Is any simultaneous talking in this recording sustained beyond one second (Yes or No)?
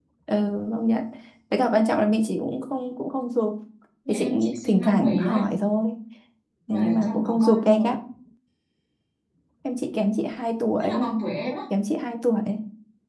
Yes